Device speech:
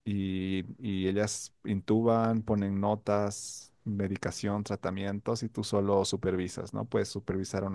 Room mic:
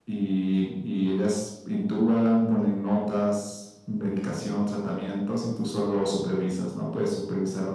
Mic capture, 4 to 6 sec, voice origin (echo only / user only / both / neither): echo only